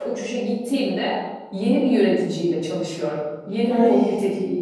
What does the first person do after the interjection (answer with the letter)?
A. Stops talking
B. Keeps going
B